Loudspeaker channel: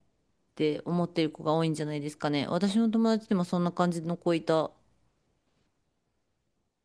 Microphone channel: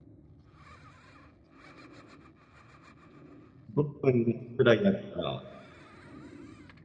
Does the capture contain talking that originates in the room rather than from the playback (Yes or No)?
Yes